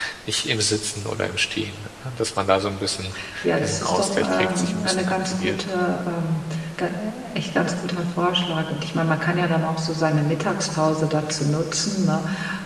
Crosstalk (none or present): present